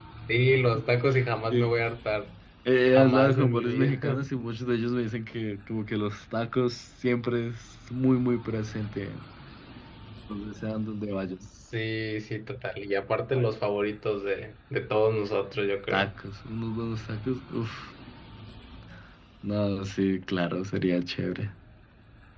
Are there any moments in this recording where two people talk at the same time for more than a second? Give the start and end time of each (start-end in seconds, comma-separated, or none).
2.9-4.3